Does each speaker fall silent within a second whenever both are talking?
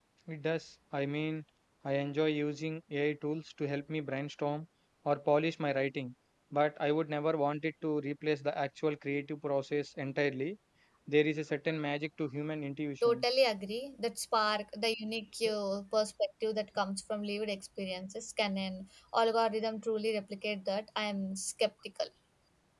Yes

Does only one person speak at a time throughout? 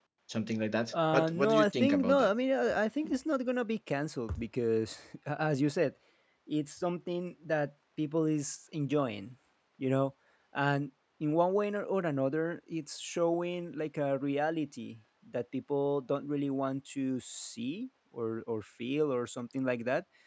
No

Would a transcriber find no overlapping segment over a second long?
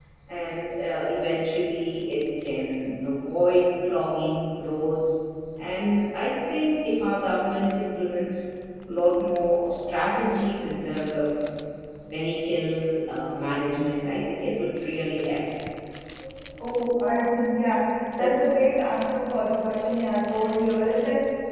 Yes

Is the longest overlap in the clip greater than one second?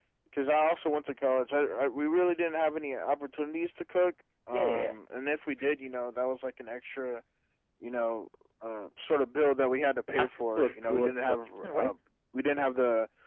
Yes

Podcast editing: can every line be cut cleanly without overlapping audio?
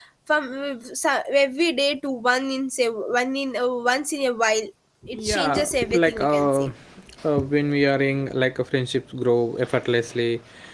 No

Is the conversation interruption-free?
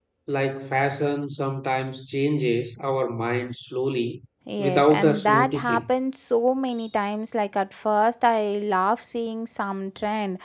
No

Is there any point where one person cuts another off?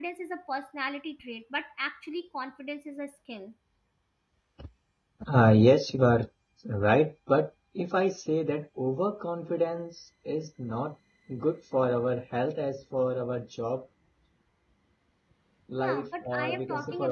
Yes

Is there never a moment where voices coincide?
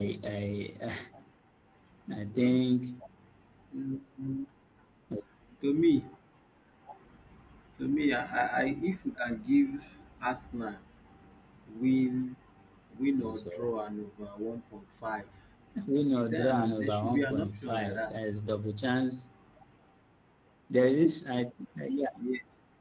No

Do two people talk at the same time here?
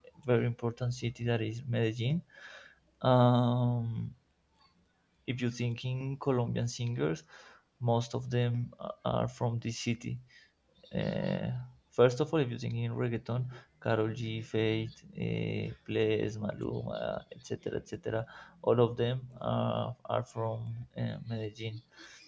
No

